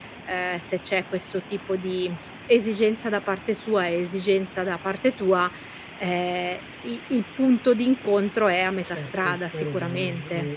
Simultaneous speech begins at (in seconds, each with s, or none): 8.8 s